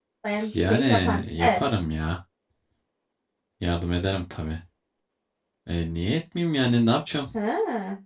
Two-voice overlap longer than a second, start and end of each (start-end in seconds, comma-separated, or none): 0.5-1.8